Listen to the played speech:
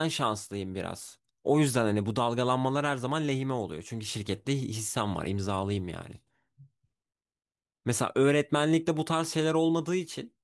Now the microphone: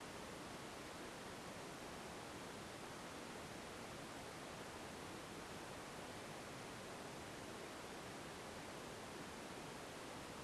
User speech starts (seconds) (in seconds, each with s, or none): none